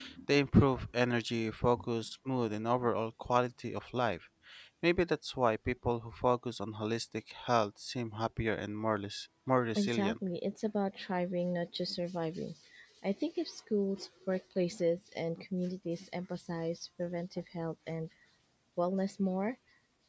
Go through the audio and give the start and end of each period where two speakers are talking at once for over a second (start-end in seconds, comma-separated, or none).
none